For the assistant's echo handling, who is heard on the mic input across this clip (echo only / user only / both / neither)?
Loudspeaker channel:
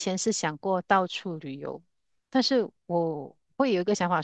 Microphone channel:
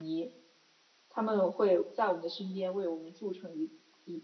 user only